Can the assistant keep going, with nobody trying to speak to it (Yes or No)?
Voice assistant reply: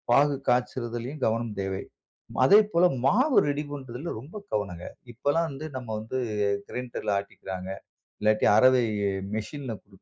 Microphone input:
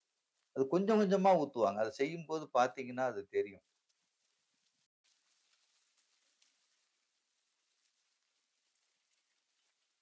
No